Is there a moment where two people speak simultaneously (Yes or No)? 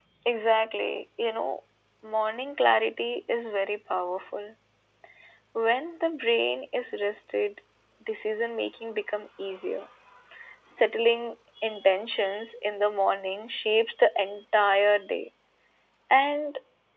No